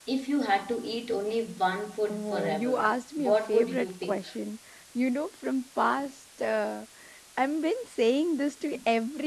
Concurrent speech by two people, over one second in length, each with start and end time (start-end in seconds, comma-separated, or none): 2.1-4.2